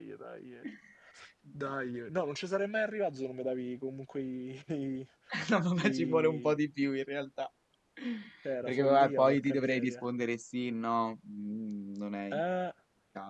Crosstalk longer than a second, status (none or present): present